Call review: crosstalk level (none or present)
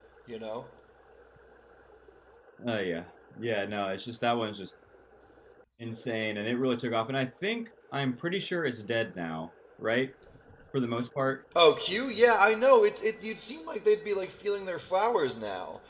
none